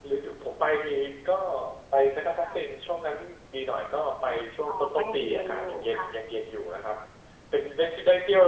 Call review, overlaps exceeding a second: present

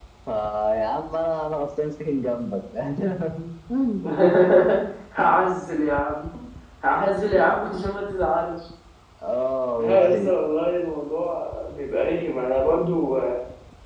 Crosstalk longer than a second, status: none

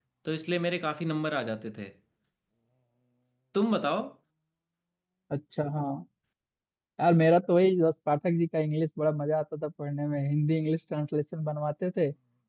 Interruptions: none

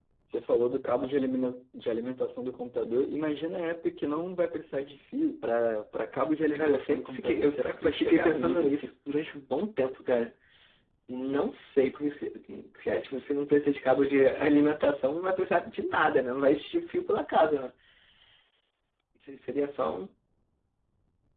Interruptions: present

